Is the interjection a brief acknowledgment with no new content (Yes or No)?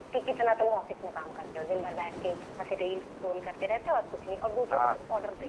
No